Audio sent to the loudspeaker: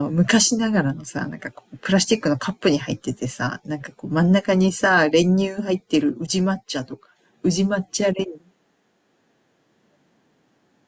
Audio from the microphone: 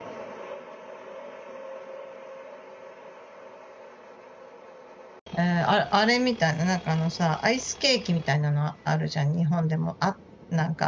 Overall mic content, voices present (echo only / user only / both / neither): user only